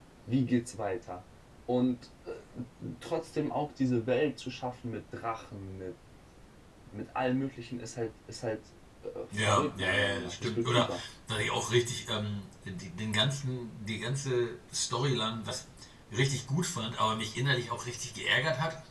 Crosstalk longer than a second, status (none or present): present